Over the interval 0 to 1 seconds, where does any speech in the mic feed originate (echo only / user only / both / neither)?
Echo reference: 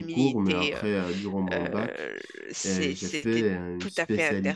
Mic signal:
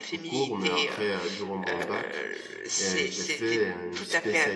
echo only